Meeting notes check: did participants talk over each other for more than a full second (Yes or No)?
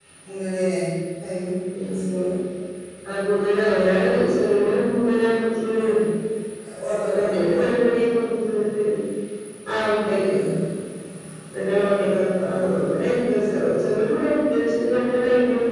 No